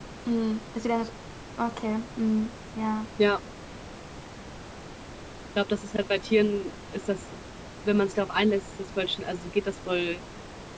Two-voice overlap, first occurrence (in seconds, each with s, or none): none